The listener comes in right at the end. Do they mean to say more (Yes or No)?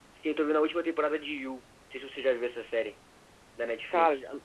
Yes